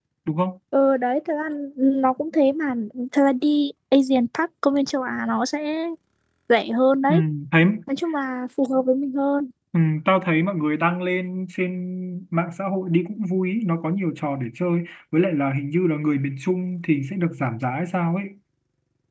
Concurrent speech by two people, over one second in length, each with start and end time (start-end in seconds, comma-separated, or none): none